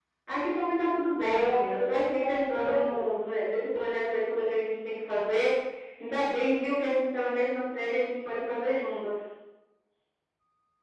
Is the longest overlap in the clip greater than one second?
Yes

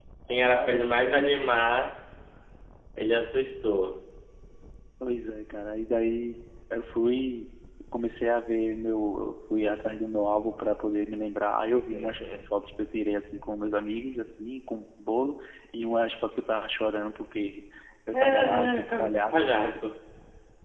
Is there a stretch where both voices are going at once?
Yes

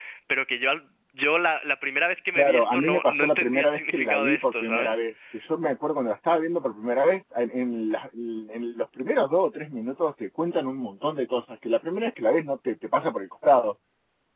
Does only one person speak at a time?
No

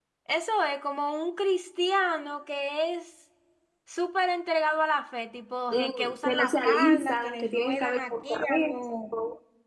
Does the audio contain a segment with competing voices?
Yes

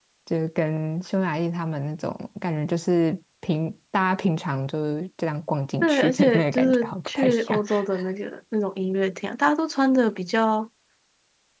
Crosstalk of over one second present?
Yes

